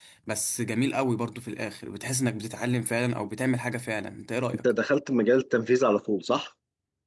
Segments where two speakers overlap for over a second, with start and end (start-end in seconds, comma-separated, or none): none